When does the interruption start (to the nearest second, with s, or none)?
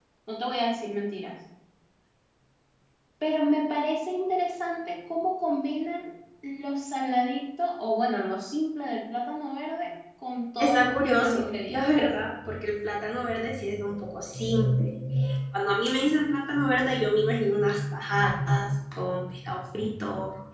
11 s